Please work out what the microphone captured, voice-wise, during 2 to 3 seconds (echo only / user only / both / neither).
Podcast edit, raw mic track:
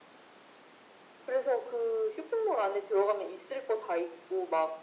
echo only